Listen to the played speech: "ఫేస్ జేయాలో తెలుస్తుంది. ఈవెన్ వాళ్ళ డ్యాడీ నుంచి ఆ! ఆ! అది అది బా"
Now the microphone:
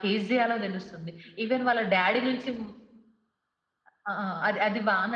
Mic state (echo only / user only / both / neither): echo only